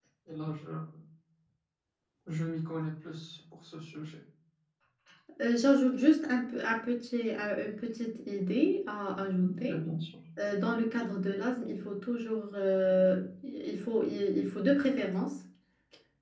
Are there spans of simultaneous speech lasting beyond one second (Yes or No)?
No